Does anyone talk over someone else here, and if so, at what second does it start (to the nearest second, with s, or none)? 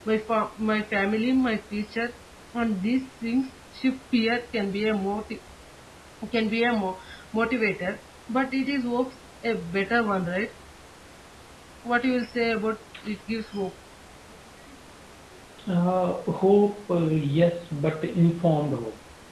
none